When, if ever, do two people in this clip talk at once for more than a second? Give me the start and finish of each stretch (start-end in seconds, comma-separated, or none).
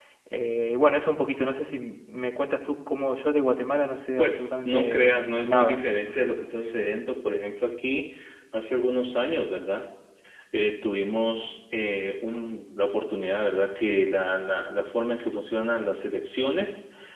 4.2-5.8